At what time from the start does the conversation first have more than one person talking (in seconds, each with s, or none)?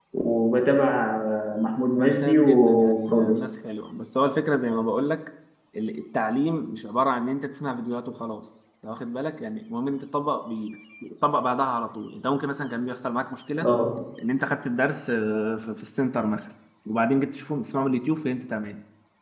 2.0 s